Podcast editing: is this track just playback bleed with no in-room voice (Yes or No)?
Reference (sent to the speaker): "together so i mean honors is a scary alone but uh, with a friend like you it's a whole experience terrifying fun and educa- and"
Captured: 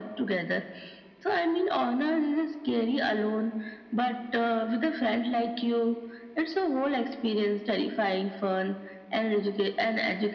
Yes